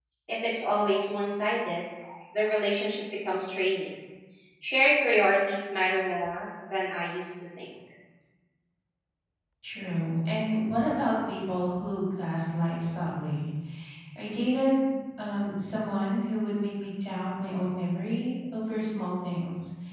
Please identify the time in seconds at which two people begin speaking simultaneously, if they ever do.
none

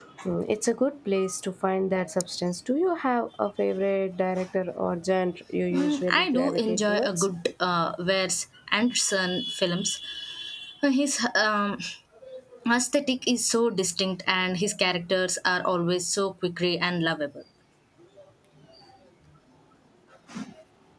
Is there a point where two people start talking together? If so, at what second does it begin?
5.7 s

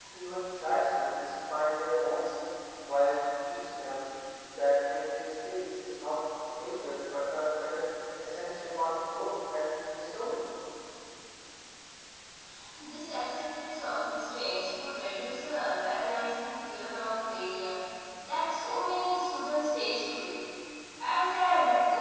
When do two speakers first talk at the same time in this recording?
none

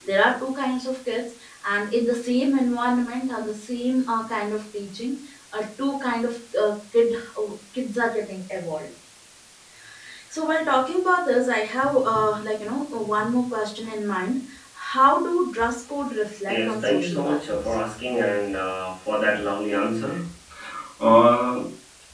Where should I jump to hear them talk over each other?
16.5 s

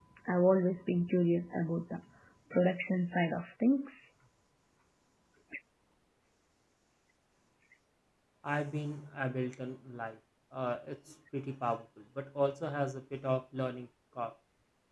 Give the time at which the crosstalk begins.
none

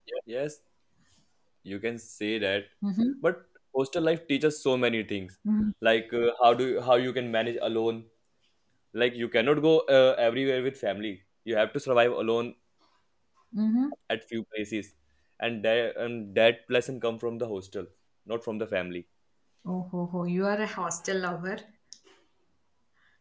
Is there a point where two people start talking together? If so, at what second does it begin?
none

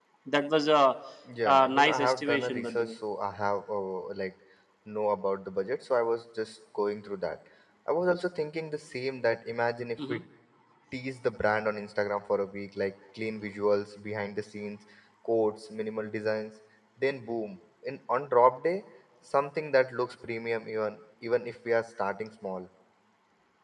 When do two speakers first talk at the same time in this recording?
1.4 s

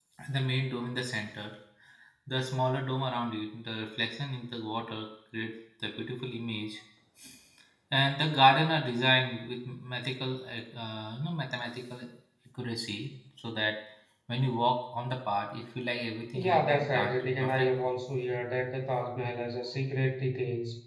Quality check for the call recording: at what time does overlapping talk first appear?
16.3 s

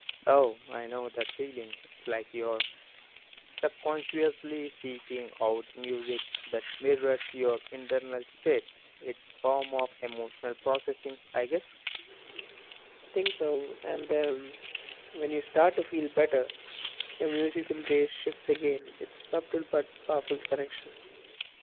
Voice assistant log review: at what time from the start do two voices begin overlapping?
none

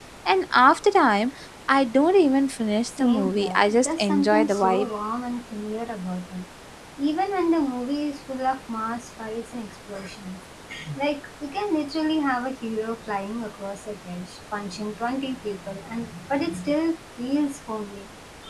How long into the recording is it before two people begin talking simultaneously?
2.9 s

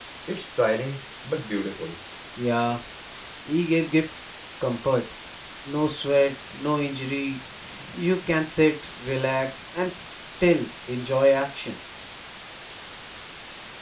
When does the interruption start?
none

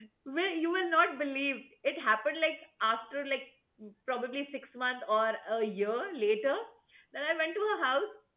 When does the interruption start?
none

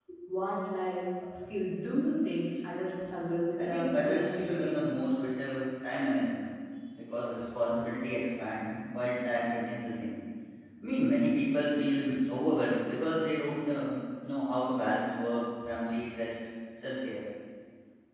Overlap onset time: 3.6 s

